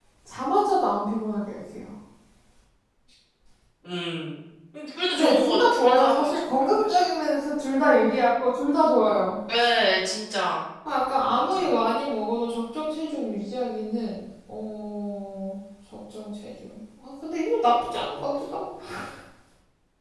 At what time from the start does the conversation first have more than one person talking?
5 s

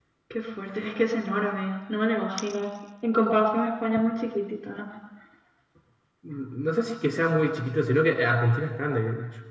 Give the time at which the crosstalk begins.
none

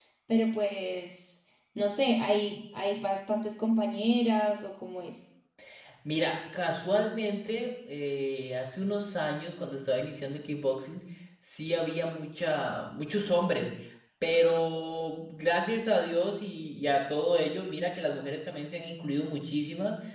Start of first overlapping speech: none

